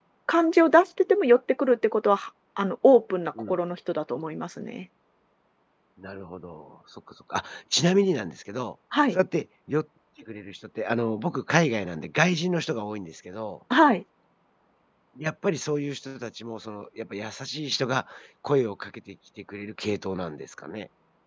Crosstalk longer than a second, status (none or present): none